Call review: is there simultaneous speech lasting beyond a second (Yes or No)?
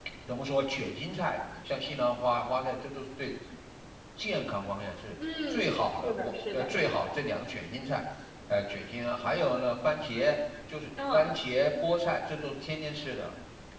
Yes